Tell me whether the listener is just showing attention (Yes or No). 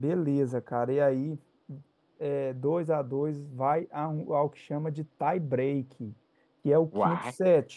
Yes